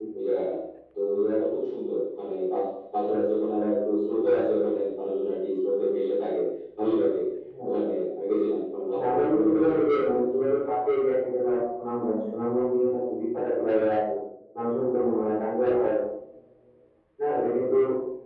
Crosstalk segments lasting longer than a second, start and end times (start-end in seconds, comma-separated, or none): 8.9-10.2